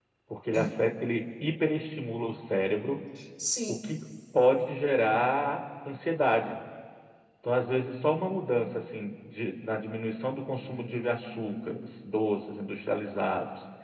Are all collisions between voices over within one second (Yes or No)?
No